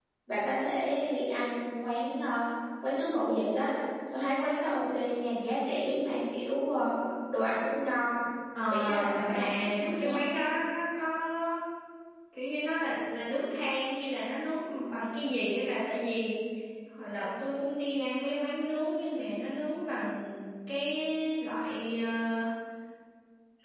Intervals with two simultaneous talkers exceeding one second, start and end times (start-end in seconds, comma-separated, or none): 8.7-10.2